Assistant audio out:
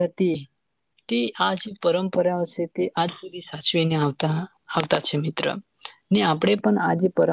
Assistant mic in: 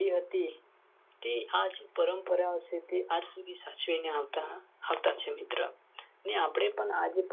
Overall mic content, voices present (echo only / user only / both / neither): echo only